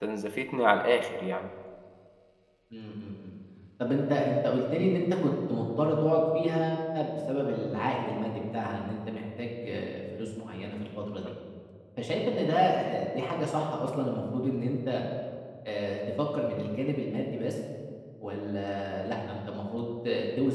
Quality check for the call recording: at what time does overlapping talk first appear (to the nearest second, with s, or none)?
none